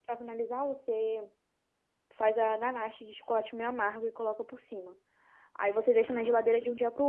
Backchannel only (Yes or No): Yes